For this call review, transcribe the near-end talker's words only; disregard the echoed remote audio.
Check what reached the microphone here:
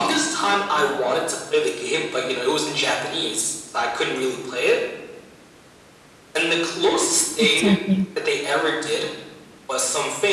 Exactly.

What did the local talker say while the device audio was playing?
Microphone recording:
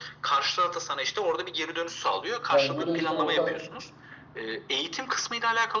Yani böyle işte orta

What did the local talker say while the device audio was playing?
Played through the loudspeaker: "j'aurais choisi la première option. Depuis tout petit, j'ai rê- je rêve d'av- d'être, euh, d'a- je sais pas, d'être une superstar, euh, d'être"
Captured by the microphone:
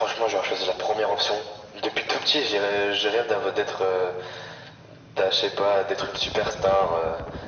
none

